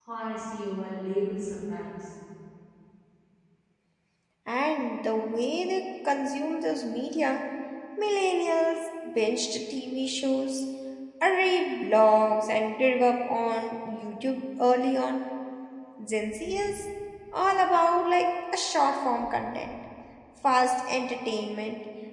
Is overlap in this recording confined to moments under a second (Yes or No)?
Yes